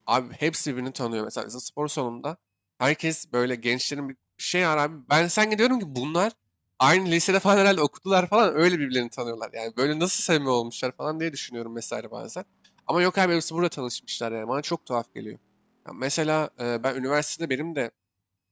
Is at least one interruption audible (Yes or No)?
No